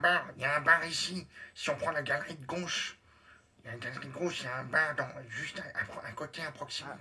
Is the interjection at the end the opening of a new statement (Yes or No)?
Yes